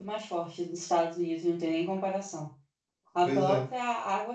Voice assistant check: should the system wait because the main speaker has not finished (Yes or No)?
Yes